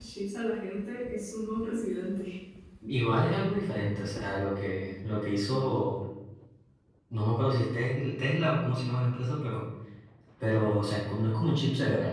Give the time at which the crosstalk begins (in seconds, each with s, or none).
none